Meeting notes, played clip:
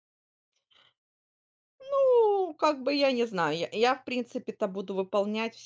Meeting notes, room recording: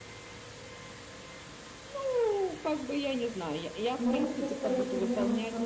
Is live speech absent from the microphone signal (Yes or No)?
No